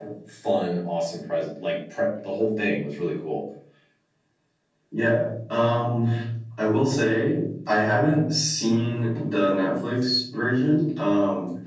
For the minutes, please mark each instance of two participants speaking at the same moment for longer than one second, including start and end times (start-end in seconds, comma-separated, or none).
none